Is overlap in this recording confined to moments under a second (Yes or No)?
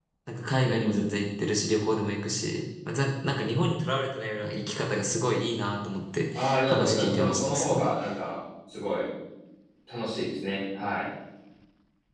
No